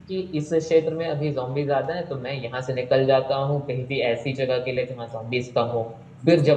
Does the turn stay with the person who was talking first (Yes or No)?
Yes